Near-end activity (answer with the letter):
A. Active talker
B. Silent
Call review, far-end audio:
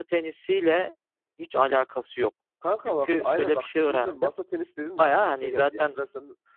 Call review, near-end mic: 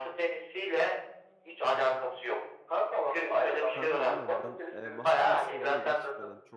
A